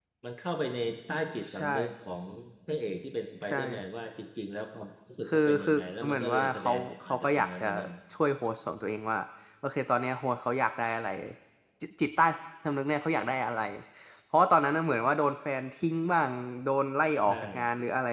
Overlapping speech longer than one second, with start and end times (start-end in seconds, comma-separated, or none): 5.3-7.7